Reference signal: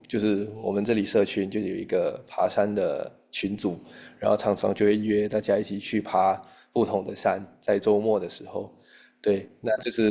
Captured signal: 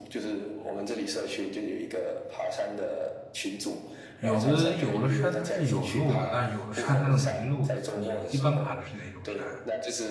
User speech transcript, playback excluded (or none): 有的有的山它是有路的，但有的山它是没路的。你一般爬的是哪种山啊